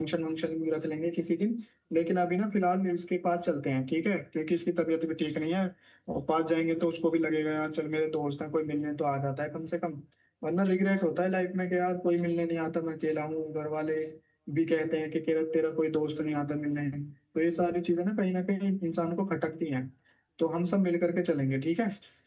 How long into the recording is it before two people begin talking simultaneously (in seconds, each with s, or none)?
none